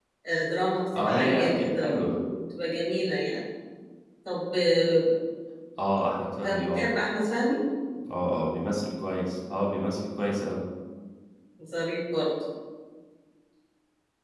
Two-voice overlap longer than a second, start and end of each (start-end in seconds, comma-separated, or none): 1.0-2.2